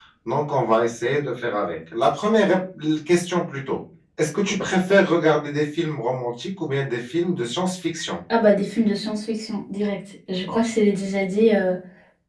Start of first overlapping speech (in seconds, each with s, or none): none